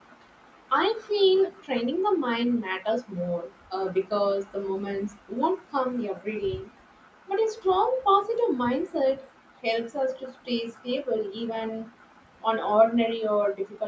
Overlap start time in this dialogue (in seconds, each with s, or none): none